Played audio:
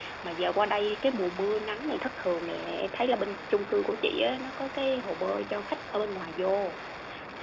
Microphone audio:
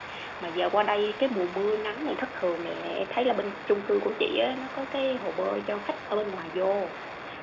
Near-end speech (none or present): none